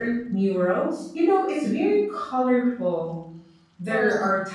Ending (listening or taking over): listening